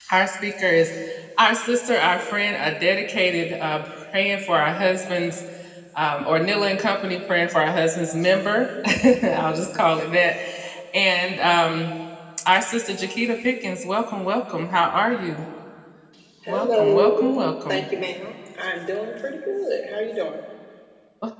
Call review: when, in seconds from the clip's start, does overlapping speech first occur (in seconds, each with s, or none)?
16.5 s